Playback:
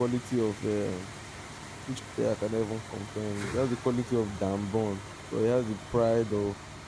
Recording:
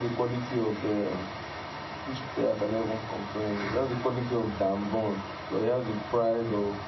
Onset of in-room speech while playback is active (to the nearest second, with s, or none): none